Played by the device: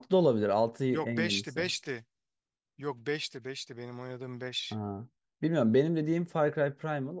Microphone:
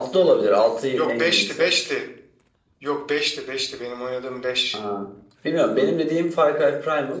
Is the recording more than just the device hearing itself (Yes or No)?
No